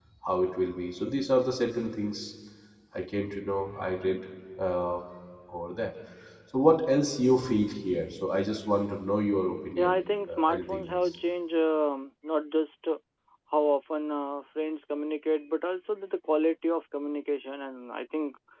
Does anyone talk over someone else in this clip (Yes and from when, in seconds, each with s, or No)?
Yes, from 9.8 s